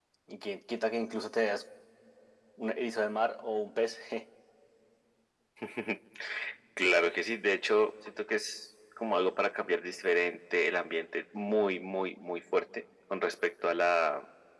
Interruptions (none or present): none